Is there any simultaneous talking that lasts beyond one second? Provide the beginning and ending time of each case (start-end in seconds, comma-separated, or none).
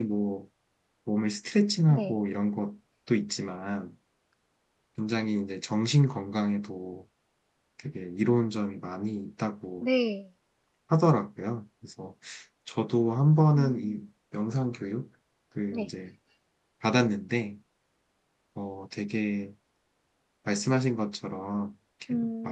none